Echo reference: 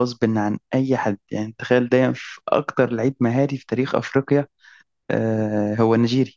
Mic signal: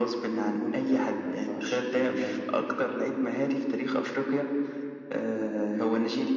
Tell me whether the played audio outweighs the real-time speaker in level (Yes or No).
Yes